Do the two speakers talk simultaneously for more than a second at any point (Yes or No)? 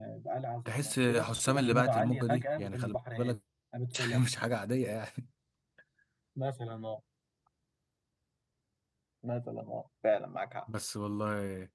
Yes